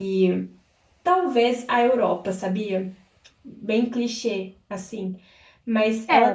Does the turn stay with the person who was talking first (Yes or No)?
No